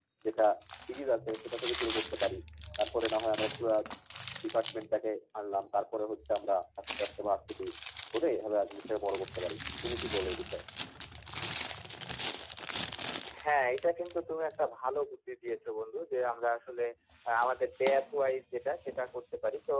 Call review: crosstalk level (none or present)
none